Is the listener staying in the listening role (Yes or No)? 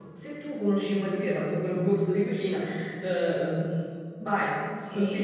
No